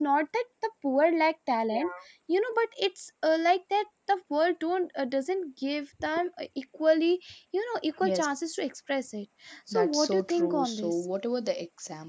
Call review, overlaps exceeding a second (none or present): present